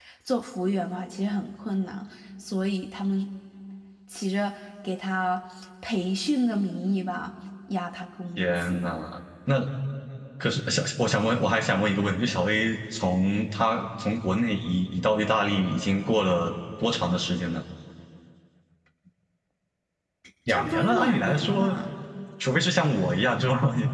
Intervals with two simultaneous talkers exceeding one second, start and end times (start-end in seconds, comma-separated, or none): 20.5-21.8